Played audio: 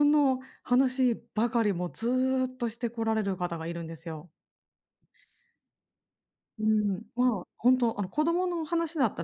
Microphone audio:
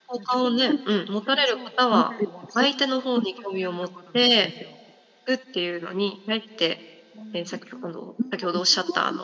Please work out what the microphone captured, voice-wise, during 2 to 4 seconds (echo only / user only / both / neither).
both